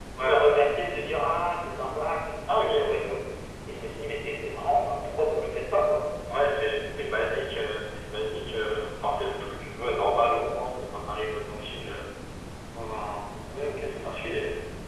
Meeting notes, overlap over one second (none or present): none